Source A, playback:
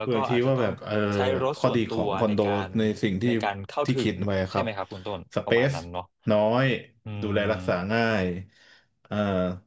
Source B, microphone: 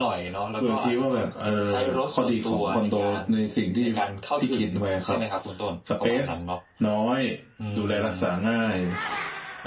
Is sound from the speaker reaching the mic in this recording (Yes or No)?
Yes